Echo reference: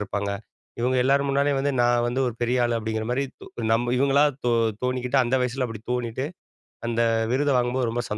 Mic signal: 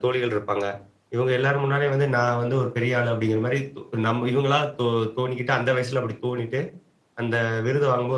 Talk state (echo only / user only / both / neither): echo only